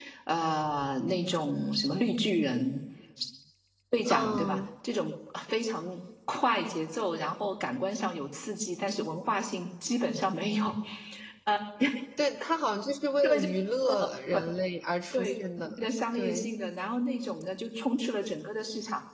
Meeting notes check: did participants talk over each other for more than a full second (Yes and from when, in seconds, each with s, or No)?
No